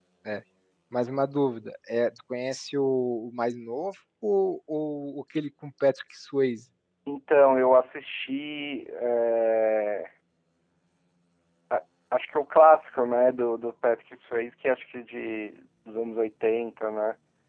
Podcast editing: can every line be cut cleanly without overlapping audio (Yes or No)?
Yes